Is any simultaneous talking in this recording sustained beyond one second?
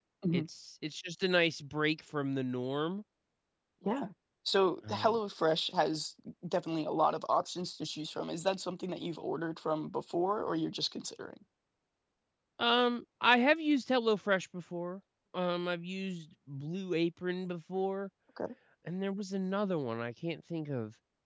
No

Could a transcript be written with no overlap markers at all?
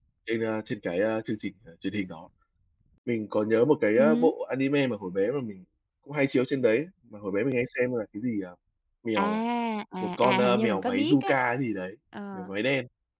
No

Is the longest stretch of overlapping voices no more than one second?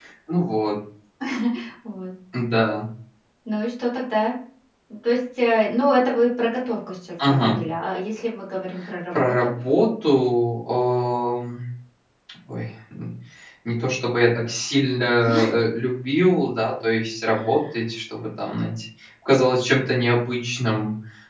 Yes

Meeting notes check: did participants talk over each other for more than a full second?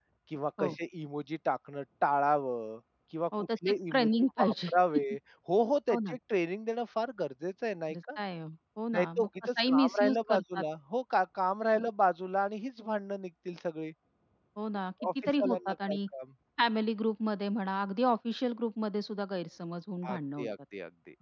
Yes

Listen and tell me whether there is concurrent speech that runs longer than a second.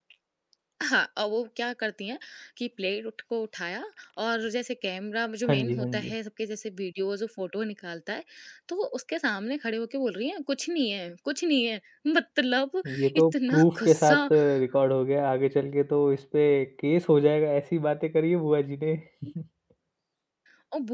Yes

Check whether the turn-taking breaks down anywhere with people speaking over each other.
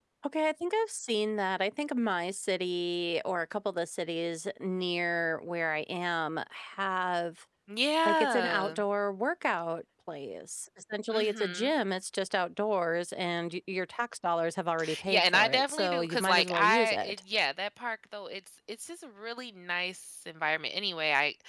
Yes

